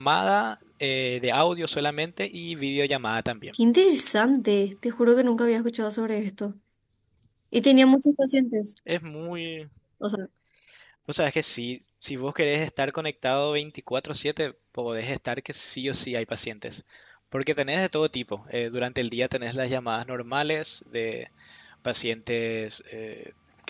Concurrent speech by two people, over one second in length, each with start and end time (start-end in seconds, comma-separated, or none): none